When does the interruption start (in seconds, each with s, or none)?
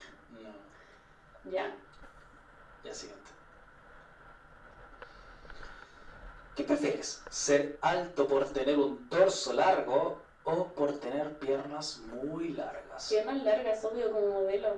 none